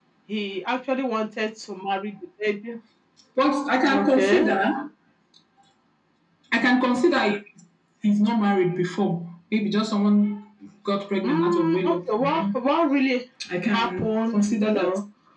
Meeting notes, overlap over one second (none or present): present